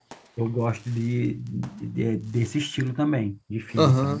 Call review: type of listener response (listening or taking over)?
taking over